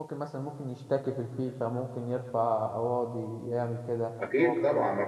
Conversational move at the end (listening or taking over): taking over